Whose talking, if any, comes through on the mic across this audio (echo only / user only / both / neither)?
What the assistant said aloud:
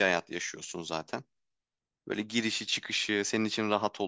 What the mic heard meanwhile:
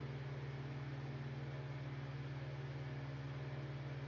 neither